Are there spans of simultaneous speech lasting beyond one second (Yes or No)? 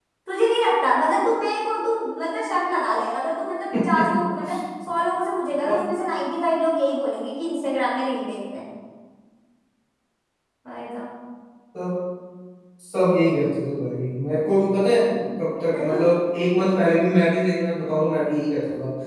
No